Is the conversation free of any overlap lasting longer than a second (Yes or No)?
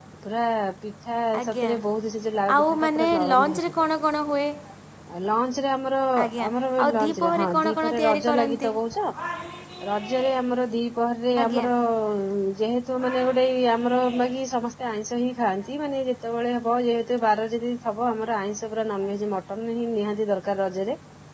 No